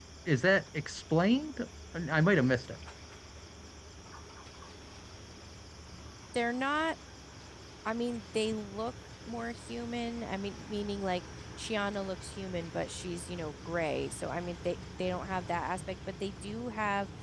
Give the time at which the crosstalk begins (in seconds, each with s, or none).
none